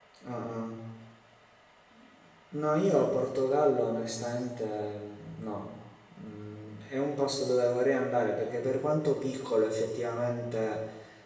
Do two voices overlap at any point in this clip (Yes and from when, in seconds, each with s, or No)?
No